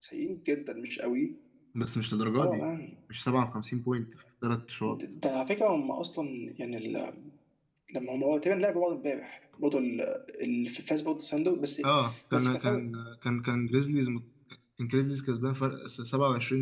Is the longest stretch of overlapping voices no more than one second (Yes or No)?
Yes